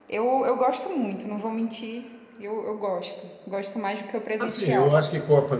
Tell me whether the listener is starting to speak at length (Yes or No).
Yes